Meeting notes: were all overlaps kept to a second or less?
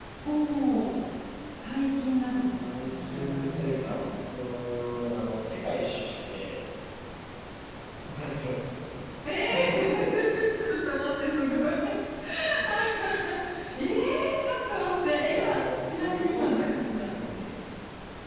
No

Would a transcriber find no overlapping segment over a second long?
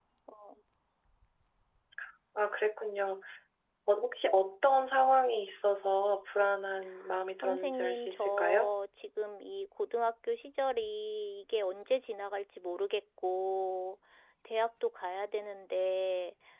No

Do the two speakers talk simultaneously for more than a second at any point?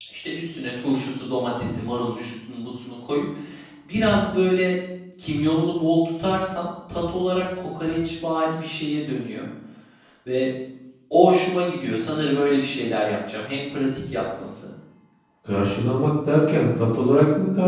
No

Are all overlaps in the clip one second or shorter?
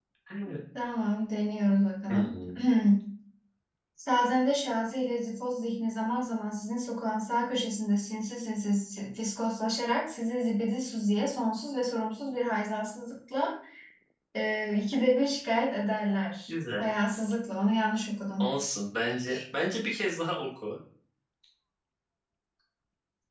Yes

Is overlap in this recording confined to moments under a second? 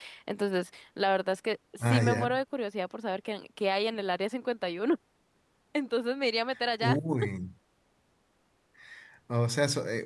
Yes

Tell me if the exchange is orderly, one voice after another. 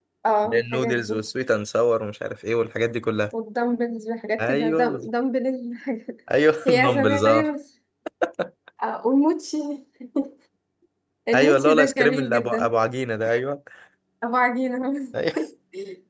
No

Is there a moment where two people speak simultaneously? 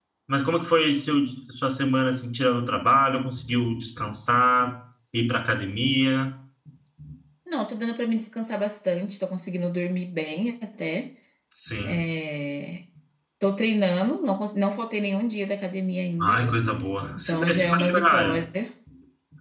Yes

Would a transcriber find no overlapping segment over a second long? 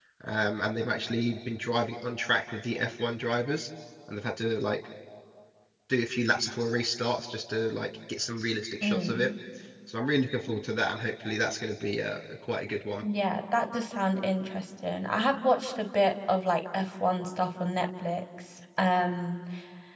Yes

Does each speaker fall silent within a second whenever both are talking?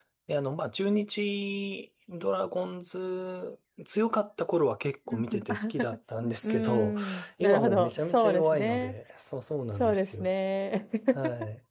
No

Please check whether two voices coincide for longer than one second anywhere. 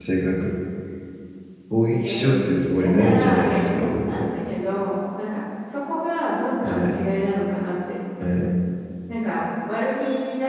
Yes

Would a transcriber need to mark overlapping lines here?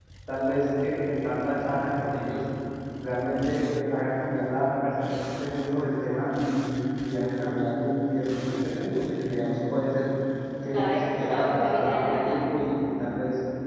Yes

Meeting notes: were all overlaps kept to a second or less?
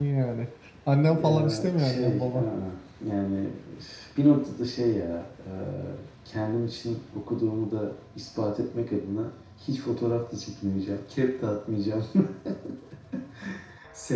No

